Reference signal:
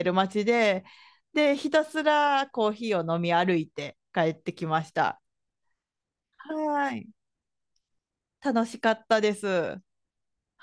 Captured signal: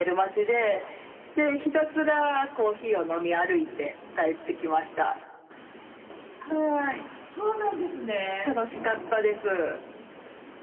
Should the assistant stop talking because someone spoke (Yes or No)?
Yes